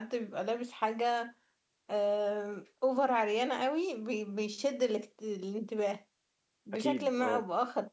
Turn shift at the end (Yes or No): No